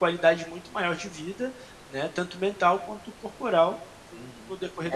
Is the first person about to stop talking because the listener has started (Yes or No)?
Yes